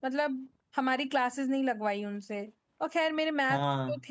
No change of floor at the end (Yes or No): Yes